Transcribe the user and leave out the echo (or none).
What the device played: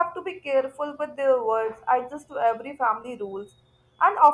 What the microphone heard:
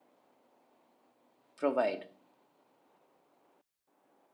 provide.